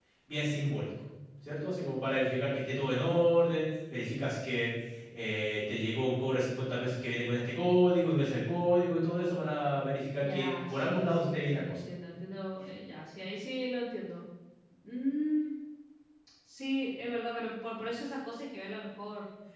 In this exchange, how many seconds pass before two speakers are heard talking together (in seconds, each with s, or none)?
10.2 s